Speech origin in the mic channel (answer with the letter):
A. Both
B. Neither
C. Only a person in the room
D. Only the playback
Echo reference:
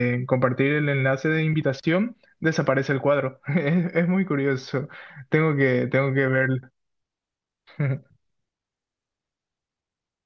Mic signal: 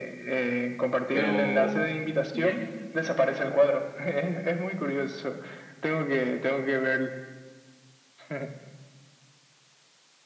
A